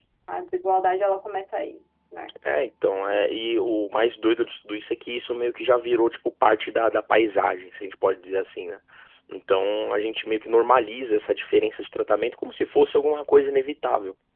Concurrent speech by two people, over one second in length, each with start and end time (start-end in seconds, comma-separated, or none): none